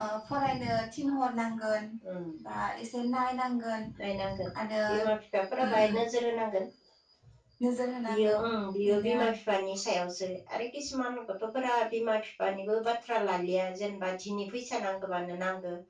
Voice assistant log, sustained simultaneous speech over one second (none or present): none